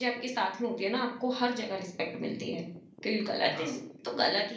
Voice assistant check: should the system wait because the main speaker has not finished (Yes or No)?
Yes